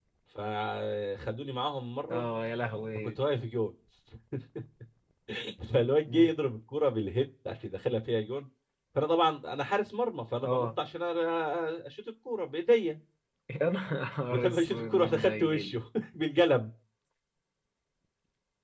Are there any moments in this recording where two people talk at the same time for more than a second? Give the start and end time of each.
14.3-15.7

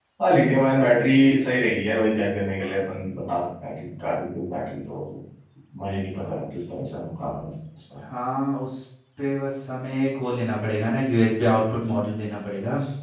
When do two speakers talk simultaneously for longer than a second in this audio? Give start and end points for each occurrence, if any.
none

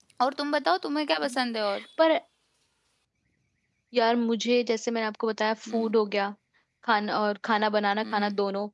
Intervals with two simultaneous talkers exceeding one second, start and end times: none

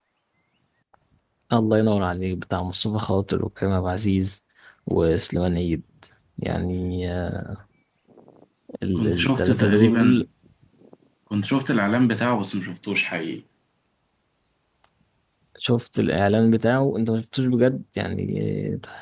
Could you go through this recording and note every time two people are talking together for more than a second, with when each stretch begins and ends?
9.0-10.2

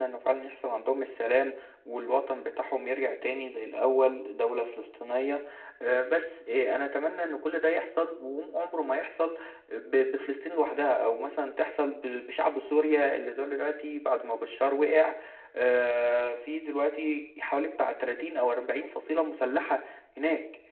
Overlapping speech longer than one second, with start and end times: none

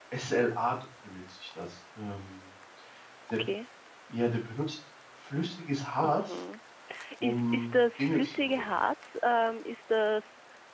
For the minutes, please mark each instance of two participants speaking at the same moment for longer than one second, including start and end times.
7.2-8.6

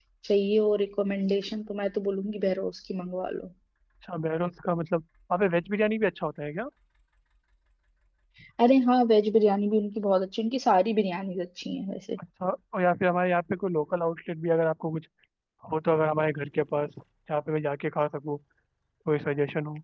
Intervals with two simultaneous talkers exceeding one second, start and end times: none

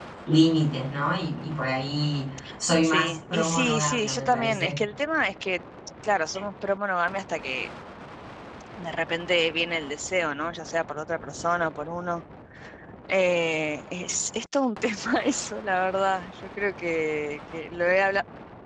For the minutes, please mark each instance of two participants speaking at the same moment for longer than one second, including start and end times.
2.8-4.8

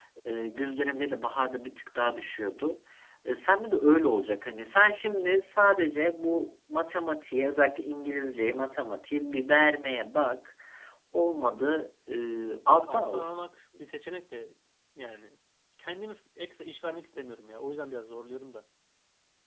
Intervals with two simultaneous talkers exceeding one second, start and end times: none

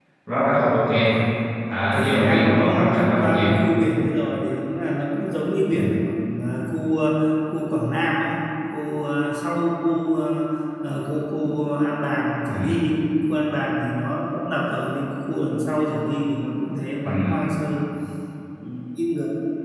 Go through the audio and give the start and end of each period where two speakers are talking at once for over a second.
1.9-3.6

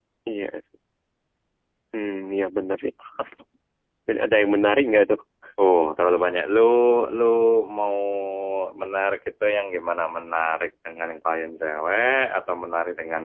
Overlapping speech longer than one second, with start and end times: none

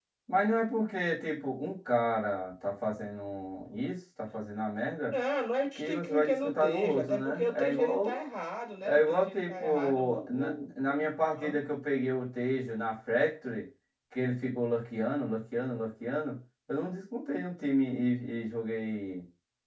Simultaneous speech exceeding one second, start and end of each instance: 5.8-8.2, 8.8-11.6

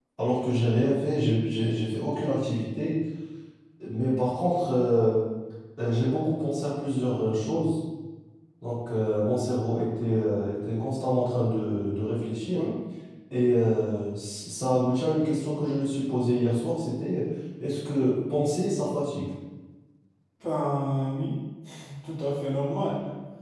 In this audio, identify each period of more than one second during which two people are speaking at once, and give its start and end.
none

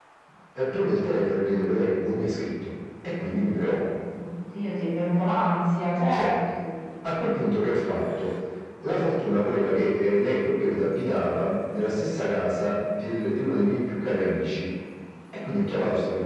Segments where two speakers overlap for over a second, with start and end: none

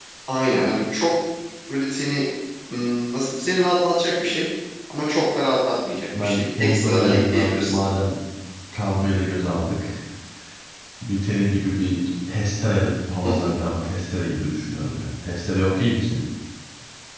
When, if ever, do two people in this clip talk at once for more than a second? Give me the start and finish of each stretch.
6.2-7.8

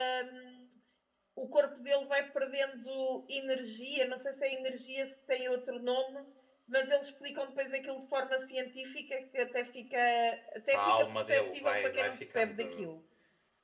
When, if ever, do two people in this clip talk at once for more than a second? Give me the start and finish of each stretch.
10.7-12.8

